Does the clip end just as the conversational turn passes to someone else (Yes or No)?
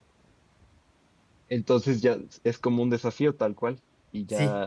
Yes